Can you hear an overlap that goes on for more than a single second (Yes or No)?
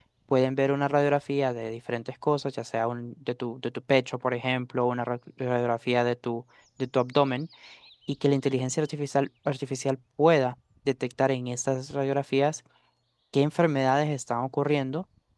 No